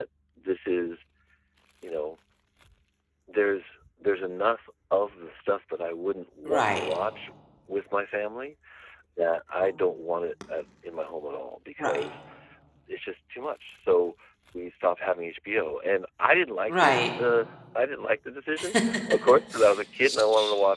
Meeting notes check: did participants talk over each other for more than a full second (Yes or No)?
No